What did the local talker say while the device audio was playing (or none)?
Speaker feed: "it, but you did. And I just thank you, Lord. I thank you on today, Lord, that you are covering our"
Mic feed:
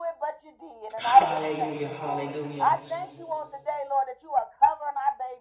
Hallelujah, hallelujah.